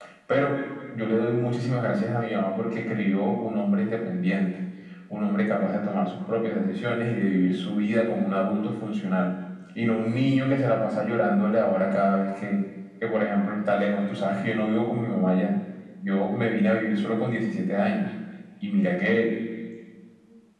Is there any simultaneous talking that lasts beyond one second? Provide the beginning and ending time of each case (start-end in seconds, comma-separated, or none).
none